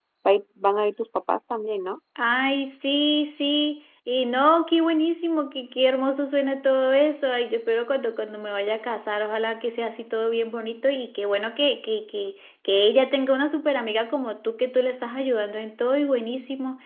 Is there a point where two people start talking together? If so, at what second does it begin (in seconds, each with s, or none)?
none